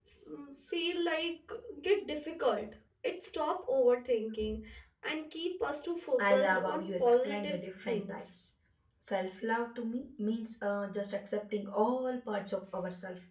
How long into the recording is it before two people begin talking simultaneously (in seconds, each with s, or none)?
6.2 s